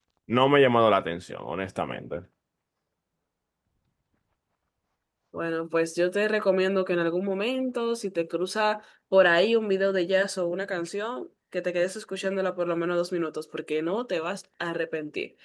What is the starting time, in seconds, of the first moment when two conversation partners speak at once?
none

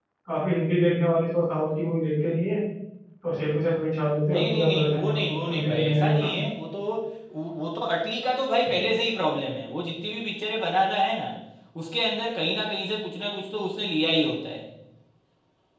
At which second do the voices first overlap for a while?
4.3 s

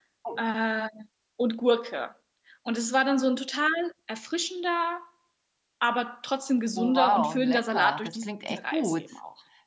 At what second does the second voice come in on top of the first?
6.8 s

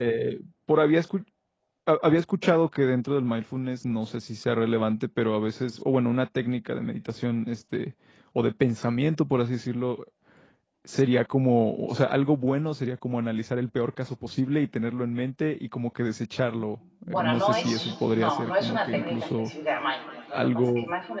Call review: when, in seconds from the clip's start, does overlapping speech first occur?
17.0 s

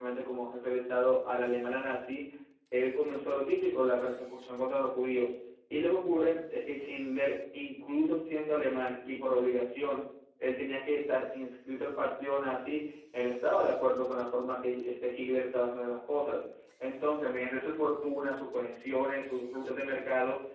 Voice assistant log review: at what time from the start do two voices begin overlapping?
none

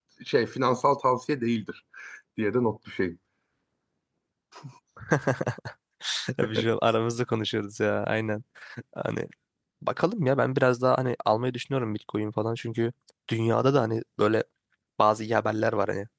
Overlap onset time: none

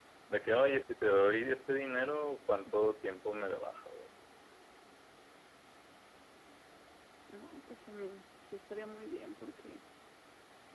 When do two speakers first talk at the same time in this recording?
none

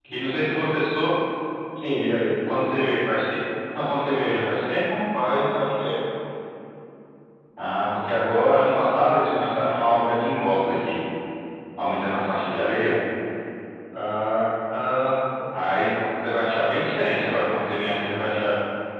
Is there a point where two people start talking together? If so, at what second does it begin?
none

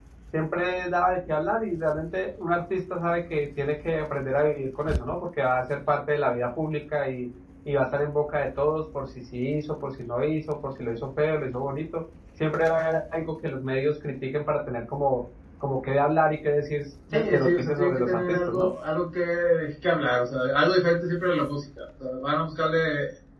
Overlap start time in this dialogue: 17.1 s

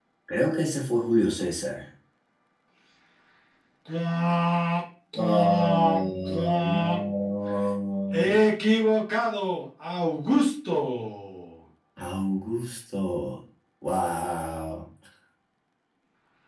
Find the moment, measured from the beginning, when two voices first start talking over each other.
5.2 s

